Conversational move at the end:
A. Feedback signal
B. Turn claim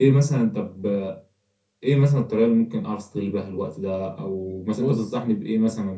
A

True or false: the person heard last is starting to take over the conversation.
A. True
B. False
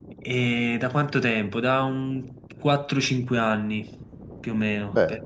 B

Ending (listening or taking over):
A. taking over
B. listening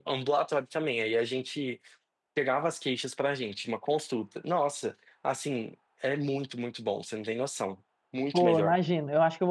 A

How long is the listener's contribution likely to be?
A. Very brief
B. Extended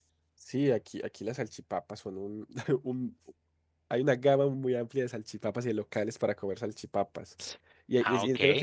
A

